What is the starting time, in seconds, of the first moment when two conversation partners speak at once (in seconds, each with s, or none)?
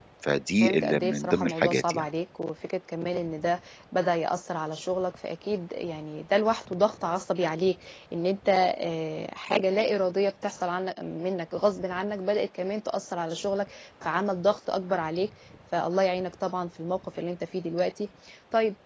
0.6 s